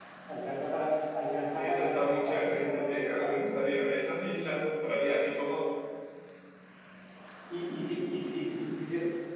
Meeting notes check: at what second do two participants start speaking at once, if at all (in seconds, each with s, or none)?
1.6 s